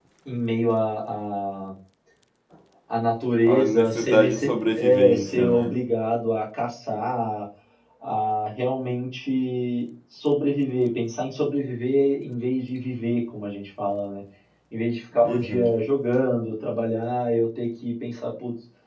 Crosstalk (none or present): present